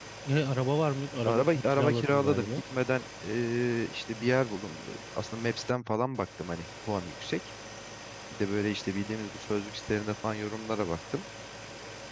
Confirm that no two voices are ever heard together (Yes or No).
No